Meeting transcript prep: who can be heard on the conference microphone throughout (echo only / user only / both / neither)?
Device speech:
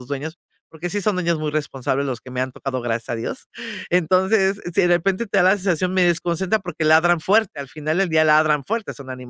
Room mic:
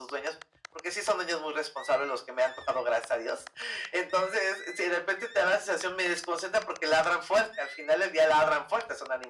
echo only